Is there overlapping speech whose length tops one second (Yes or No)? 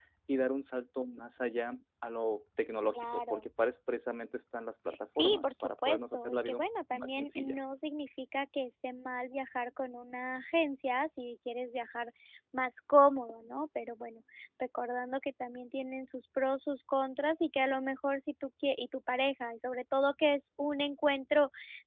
Yes